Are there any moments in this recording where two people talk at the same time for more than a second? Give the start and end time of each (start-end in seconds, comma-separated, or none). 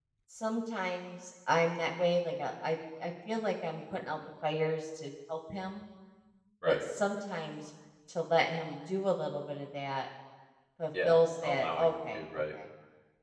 11.0-12.4